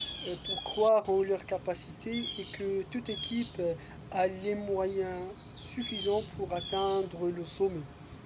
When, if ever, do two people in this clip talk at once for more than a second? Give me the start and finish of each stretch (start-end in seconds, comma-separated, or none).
none